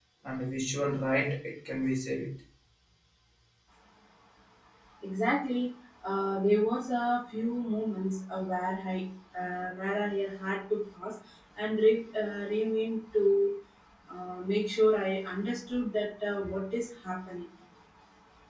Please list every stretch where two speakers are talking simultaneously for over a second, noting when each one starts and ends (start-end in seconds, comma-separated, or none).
none